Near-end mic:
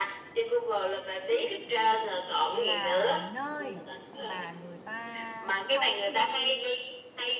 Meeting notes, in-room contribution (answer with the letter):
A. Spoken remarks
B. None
A